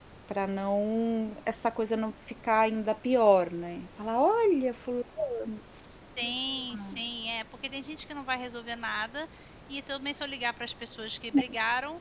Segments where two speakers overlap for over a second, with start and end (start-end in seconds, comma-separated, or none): none